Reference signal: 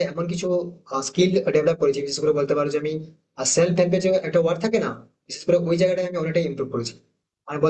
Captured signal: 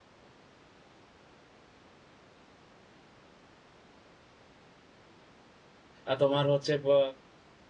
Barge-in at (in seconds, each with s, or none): 6.1 s